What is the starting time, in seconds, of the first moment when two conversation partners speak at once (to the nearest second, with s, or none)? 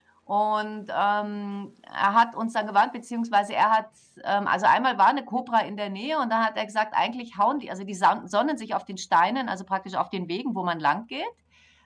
none